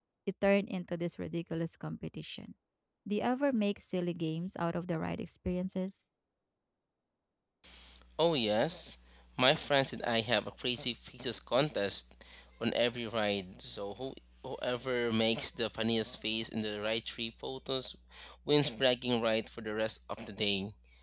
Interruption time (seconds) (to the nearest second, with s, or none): none